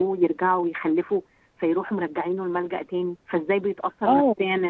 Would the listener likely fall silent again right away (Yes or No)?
No